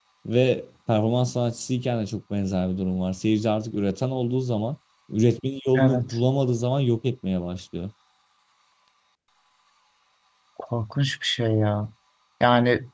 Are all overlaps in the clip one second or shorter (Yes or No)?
Yes